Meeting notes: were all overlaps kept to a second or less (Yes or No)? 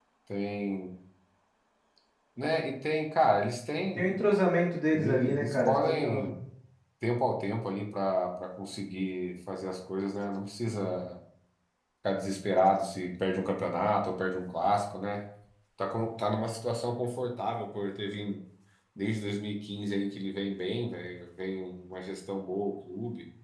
No